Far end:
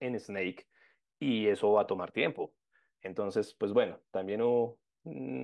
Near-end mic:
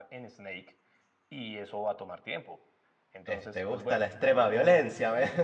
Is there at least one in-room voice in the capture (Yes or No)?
Yes